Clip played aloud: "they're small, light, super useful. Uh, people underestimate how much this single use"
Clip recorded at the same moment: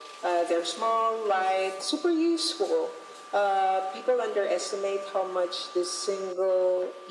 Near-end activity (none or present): none